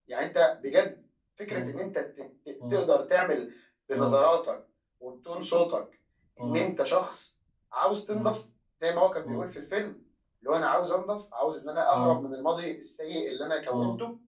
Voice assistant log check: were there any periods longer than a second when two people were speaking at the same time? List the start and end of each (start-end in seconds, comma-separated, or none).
none